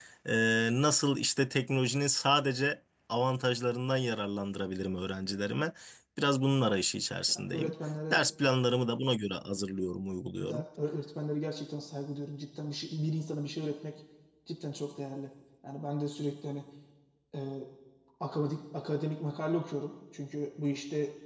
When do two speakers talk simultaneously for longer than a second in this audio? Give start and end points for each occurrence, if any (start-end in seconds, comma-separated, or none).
none